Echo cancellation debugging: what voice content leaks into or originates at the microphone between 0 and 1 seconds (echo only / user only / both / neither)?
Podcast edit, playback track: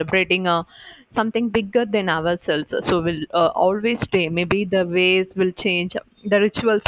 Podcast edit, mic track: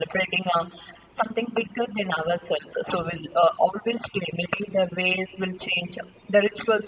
echo only